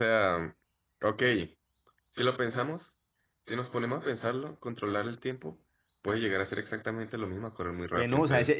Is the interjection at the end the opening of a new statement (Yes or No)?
Yes